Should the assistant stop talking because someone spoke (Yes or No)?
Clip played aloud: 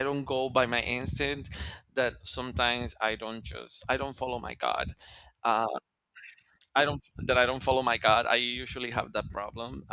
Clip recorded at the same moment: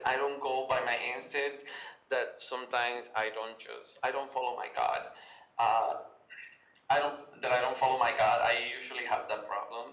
No